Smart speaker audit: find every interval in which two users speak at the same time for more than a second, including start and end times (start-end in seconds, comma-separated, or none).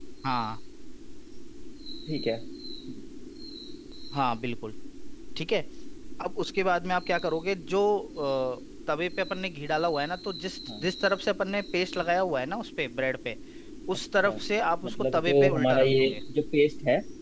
14.8-16.2